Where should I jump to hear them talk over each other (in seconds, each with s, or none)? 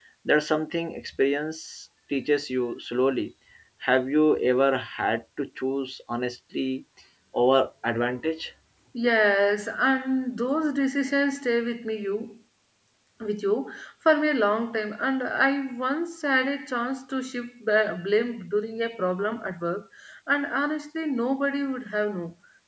none